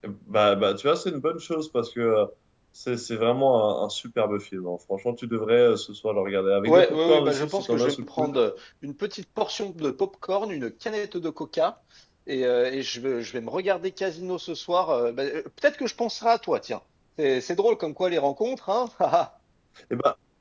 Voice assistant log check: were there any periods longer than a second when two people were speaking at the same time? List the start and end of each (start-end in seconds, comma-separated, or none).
6.7-8.3